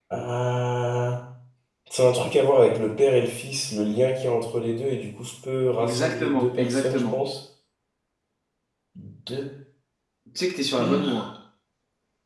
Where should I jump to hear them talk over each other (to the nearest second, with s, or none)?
6 s